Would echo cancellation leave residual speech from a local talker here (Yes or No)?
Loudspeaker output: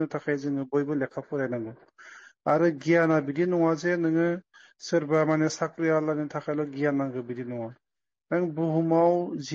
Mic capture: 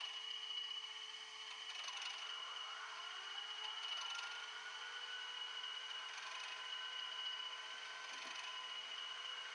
No